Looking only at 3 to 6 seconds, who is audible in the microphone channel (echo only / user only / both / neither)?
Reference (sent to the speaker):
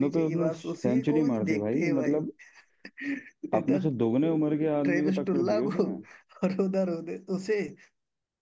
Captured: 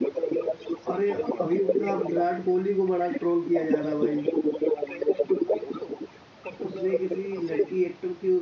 both